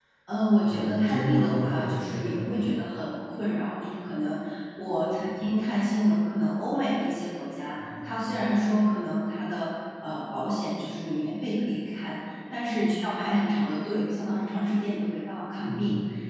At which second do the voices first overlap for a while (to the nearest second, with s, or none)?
1 s